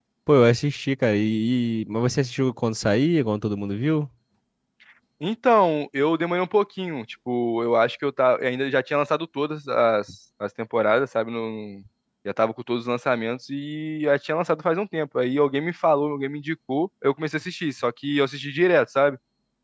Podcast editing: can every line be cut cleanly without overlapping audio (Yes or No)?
Yes